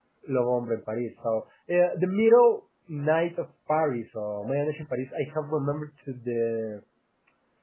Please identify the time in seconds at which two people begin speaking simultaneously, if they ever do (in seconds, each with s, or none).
none